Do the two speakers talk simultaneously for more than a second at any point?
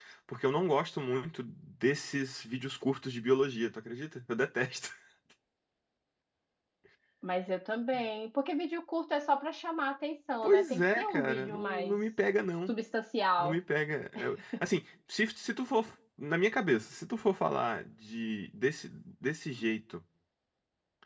Yes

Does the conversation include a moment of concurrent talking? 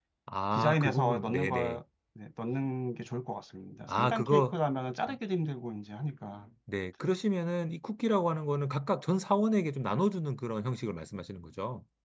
Yes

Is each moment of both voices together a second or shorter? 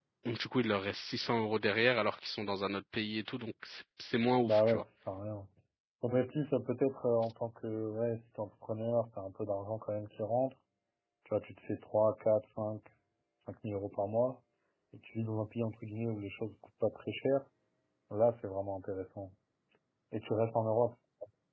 Yes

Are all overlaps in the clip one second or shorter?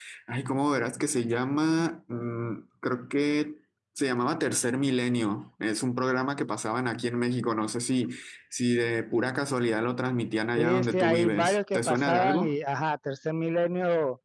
No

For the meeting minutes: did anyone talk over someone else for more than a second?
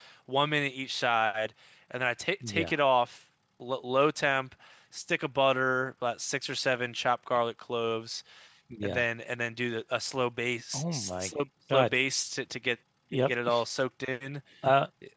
No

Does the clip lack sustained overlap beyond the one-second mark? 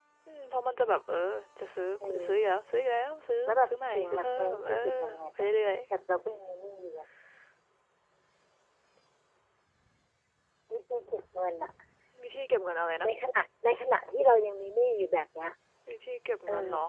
No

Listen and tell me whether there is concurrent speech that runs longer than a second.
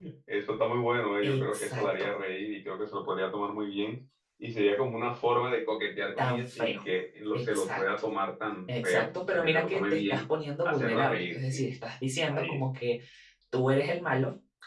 Yes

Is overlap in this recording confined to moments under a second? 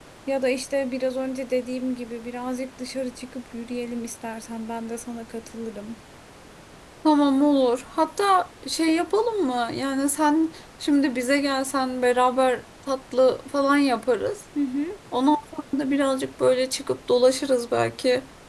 Yes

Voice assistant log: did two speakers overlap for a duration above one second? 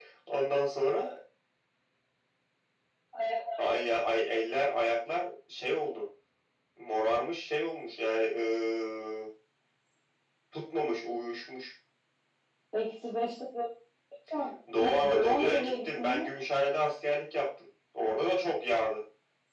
Yes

